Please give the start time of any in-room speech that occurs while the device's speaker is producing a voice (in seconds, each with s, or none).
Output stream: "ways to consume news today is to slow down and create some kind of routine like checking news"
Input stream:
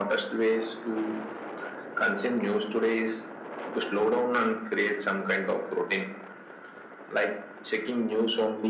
none